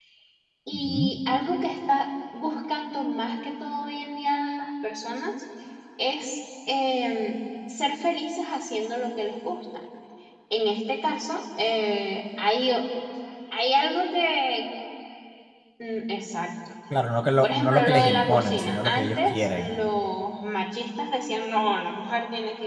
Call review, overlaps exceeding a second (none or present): present